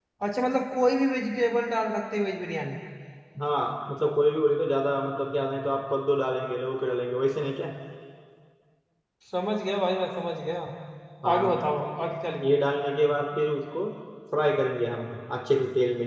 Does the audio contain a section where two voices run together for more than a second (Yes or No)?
No